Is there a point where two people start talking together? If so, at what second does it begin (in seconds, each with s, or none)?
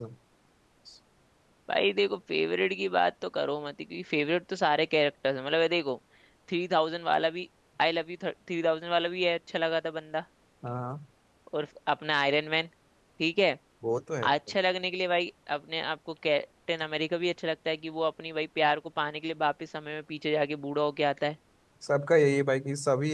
none